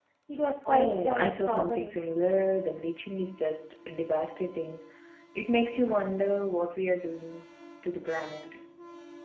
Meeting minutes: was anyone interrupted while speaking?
Yes, from 0.7 s

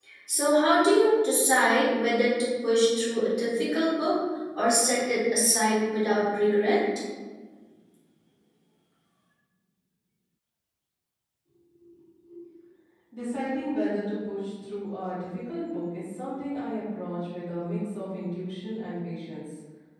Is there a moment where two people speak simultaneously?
No

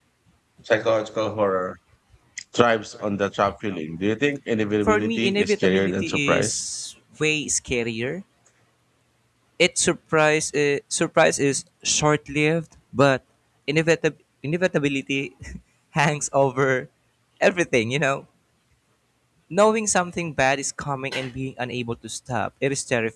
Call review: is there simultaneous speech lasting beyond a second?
Yes, from 4.8 s

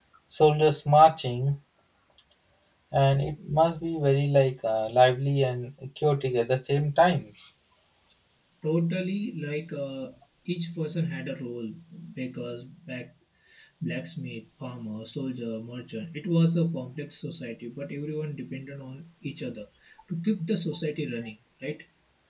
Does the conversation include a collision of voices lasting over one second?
No

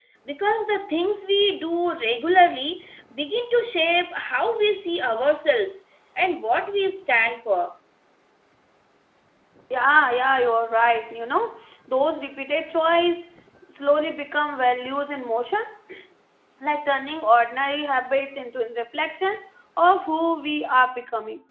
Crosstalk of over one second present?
No

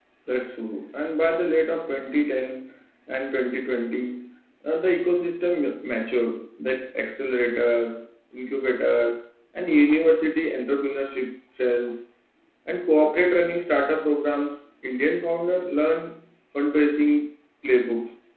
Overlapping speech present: No

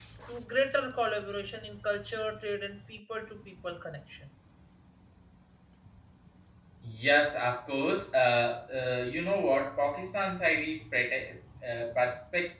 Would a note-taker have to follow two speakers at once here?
No

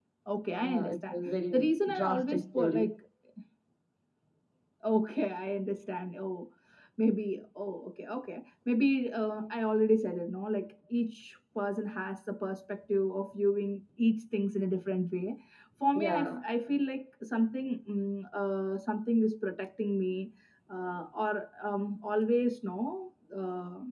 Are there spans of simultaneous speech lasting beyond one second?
Yes, from 0.6 s

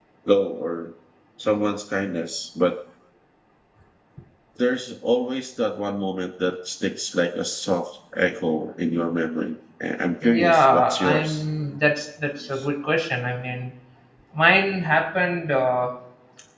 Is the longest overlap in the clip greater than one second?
Yes, from 10.2 s

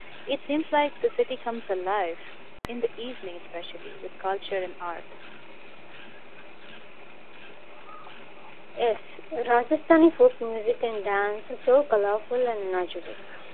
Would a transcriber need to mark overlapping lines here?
No

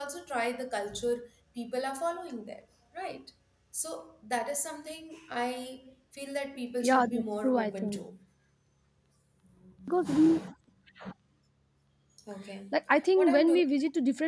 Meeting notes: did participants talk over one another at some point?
Yes, from 6.8 s

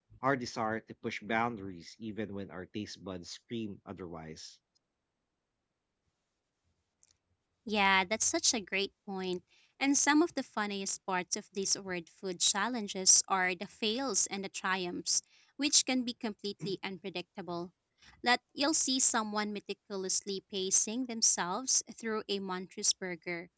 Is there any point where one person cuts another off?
No

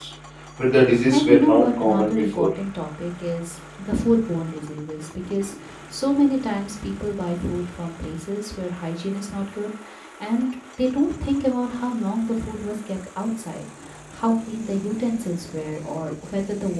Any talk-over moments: Yes, from 1.1 s

